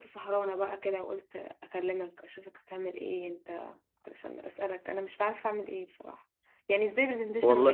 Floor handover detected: No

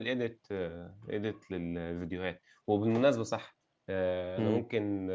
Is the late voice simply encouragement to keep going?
Yes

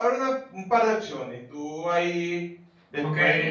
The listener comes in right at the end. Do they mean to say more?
Yes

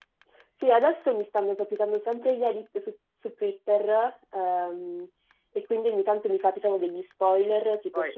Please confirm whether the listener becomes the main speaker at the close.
No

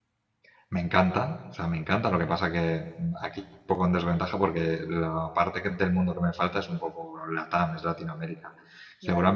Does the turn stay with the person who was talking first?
Yes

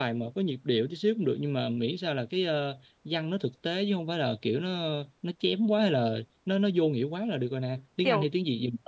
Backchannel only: No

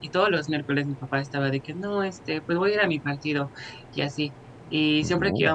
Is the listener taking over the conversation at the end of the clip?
No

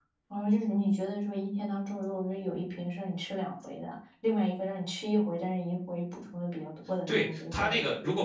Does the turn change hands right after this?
Yes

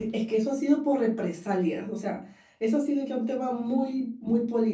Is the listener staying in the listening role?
Yes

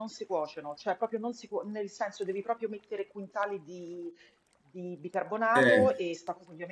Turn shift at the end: No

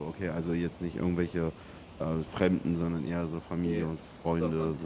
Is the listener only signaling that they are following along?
No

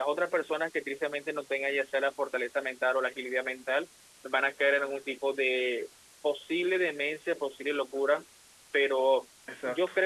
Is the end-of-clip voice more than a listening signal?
No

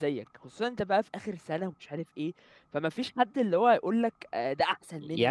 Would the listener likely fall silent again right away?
No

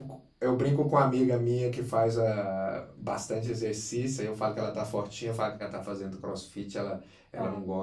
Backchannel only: Yes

